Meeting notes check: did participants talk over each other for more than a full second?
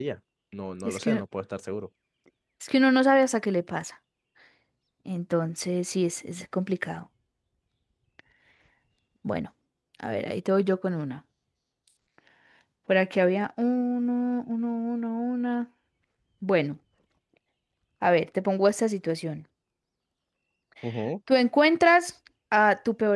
No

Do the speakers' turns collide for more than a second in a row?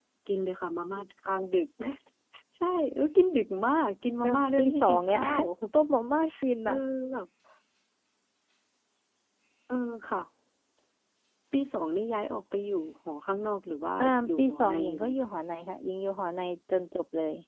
Yes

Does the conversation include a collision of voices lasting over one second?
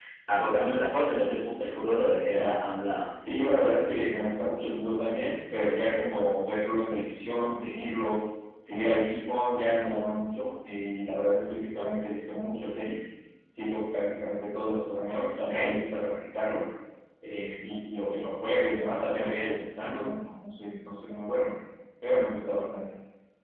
No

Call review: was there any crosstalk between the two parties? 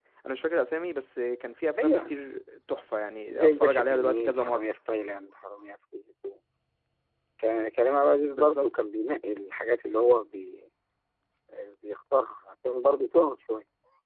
Yes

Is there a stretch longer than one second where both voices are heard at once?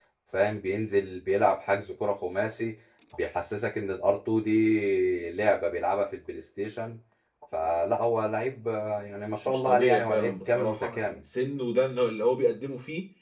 Yes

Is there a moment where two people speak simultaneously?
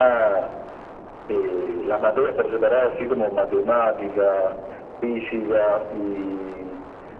No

